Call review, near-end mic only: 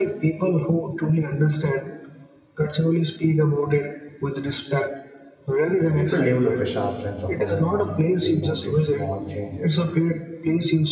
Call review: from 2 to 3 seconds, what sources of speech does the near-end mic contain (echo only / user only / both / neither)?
echo only